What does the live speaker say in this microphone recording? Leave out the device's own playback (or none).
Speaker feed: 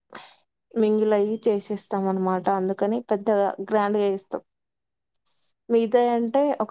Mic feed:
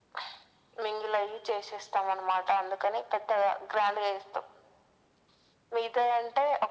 none